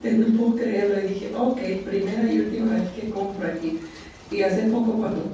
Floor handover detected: No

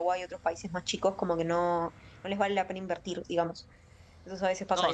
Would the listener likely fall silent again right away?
No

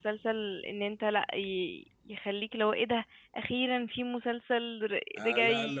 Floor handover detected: Yes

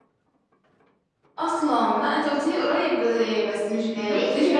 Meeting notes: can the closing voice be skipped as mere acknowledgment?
No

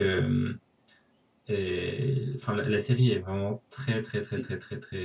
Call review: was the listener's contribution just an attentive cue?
Yes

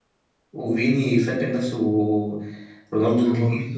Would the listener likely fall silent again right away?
No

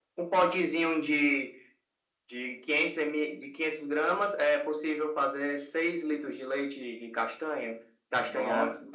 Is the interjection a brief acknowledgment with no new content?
Yes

